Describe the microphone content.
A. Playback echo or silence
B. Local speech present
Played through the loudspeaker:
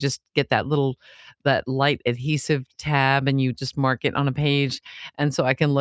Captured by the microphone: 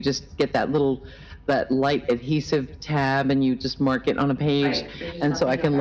B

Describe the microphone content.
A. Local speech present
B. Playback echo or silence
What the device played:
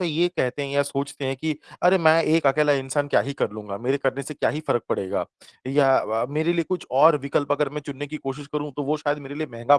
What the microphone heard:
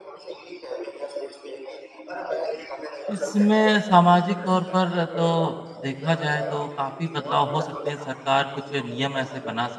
A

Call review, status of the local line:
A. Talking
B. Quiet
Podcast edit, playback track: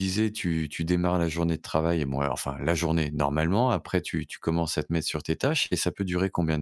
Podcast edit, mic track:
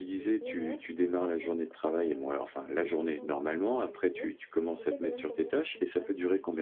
A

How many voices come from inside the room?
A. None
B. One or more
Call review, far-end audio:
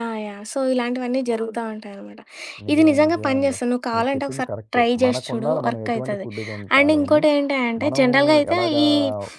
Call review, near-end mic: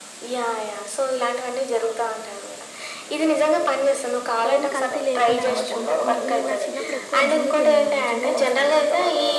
B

